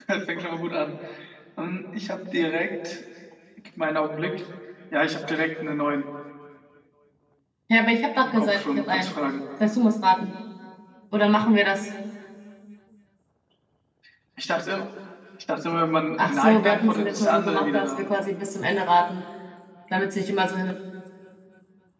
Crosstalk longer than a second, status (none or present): present